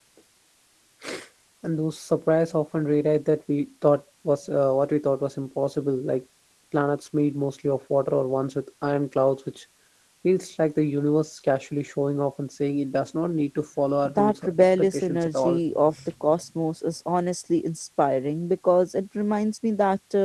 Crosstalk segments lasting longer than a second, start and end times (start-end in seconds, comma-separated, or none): 14.2-15.6